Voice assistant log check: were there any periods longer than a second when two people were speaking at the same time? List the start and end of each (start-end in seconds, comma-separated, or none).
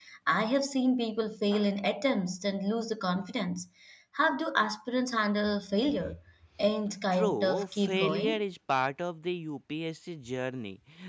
7.1-8.4